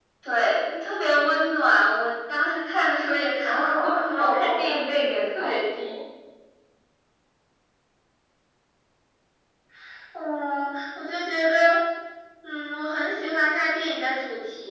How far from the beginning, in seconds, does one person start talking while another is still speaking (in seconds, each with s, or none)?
3.4 s